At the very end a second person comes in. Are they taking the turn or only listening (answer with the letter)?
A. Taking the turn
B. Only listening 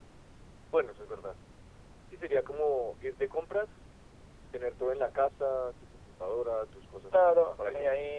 A